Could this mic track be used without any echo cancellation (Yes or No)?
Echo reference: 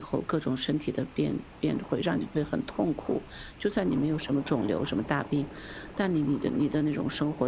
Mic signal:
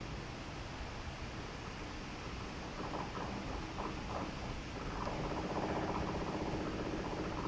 Yes